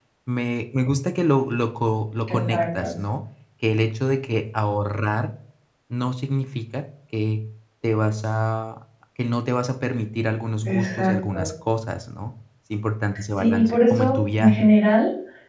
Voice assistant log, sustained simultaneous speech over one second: present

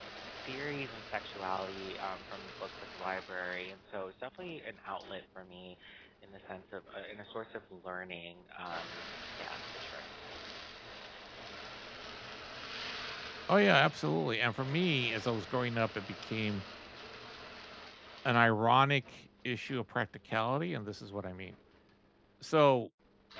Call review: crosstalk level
none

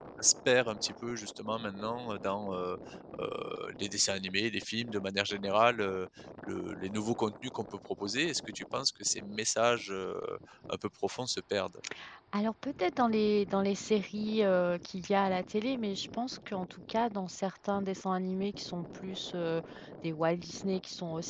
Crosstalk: none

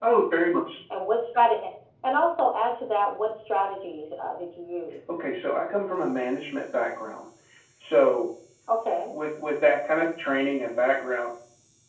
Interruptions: none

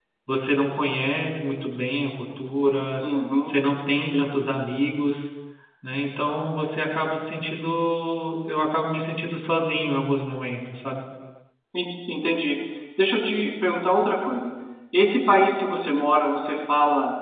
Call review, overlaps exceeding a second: none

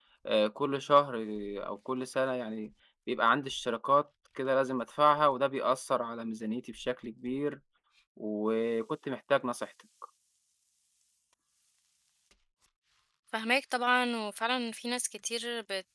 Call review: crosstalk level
none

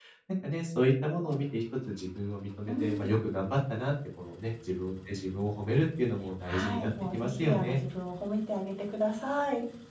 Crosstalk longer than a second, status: present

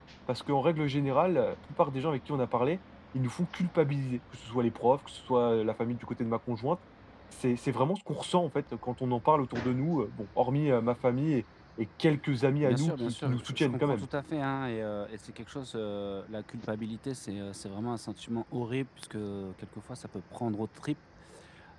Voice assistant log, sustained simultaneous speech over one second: present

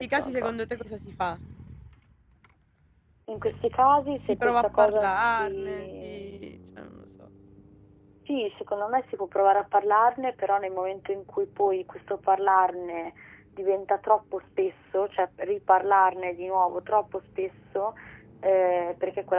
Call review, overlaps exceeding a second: present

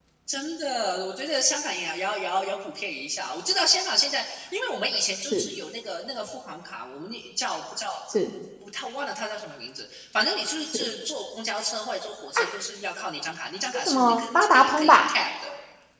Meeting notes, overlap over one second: present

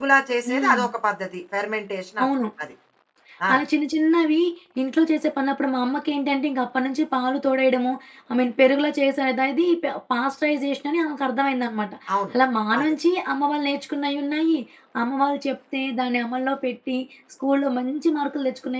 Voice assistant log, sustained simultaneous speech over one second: none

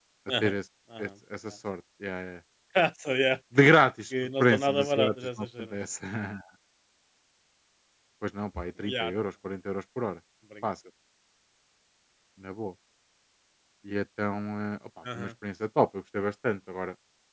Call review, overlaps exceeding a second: present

